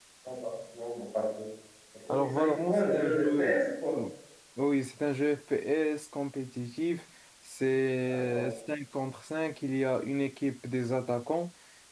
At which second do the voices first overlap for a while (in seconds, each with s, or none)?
2.1 s